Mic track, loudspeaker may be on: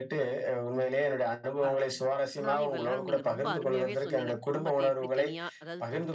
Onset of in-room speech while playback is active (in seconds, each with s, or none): 1.6 s